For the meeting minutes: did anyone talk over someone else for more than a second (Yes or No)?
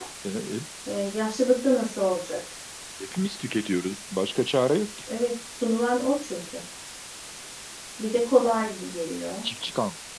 No